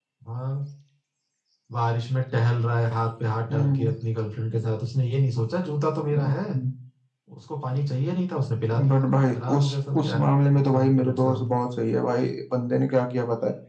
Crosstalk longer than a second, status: present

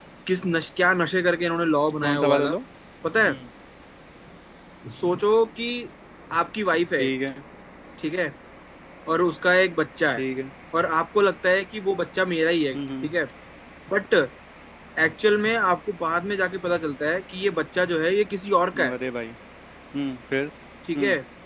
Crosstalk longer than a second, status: none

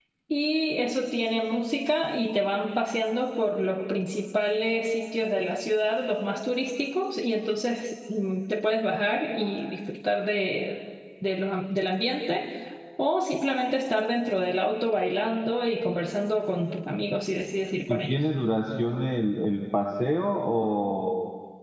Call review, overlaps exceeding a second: none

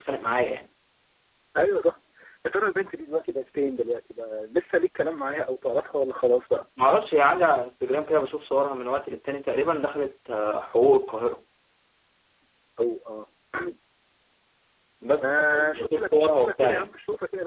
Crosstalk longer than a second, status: present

